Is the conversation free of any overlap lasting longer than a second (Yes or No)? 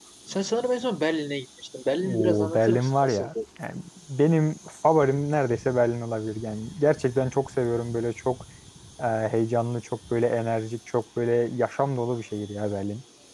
No